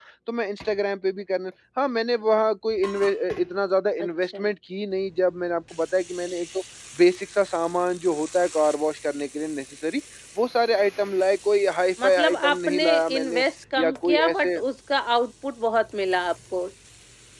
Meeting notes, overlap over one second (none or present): present